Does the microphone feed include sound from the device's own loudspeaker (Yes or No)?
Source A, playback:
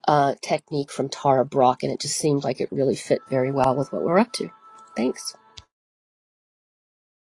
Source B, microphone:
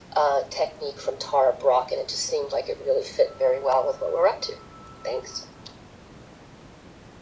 Yes